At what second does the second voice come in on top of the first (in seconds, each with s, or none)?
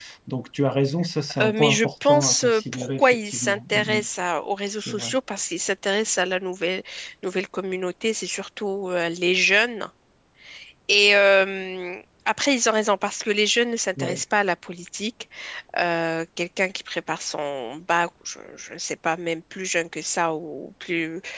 1.4 s